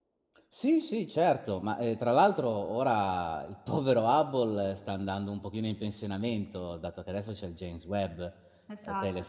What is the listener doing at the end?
listening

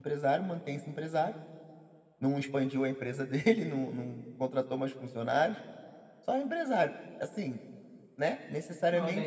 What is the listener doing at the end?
taking over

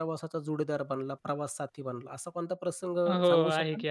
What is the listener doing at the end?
taking over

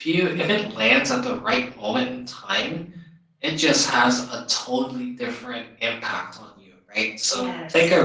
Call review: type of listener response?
listening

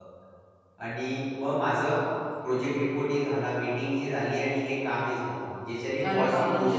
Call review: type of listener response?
taking over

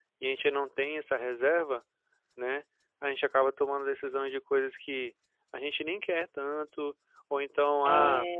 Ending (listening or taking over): listening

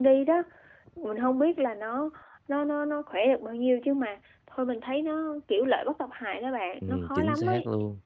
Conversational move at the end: taking over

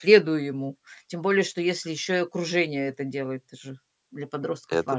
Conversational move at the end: taking over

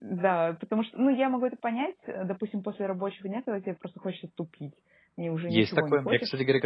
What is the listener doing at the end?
taking over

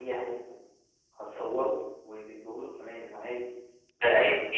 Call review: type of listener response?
taking over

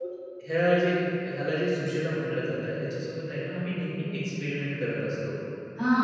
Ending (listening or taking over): taking over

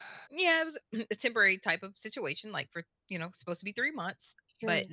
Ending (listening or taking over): listening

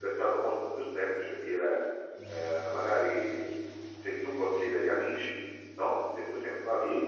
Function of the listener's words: listening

